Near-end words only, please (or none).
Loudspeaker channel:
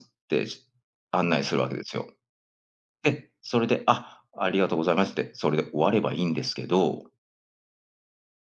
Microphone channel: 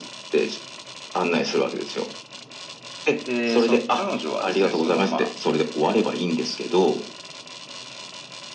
で、その彼女はですね、その、ま